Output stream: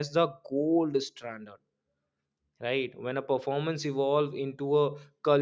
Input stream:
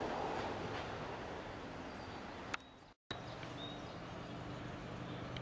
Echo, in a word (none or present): none